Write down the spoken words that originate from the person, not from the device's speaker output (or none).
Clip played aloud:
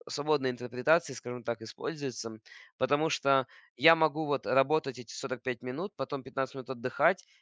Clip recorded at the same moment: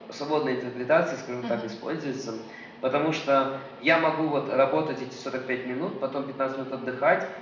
Мгм.